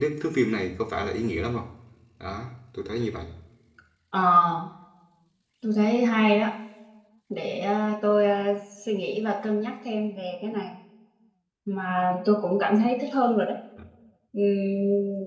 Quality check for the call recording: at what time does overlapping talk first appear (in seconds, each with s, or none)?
none